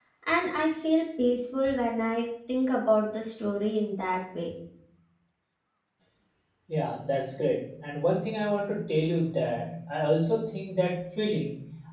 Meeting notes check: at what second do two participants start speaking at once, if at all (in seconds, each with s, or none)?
none